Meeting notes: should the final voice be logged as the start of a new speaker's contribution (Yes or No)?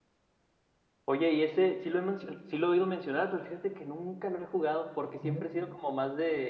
No